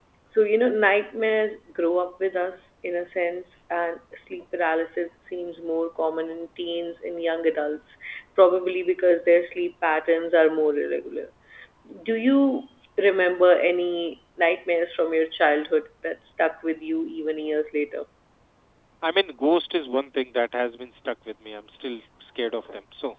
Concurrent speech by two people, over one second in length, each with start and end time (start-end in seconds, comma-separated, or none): none